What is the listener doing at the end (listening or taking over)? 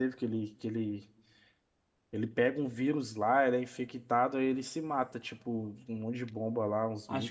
taking over